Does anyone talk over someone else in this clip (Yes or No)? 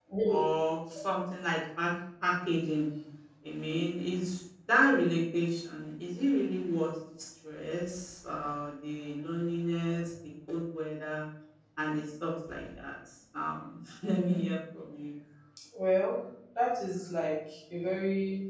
No